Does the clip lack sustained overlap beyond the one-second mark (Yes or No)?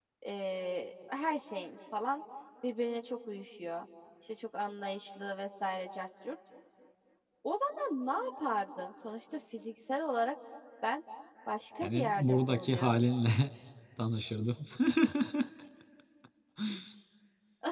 No